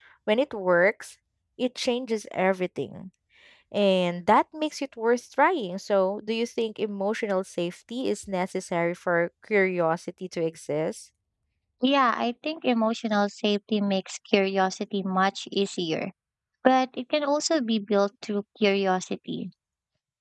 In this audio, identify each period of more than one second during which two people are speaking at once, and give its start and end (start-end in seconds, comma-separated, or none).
none